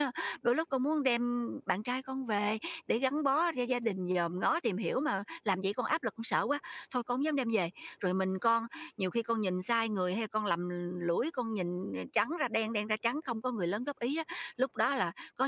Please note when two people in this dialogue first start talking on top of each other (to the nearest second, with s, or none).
none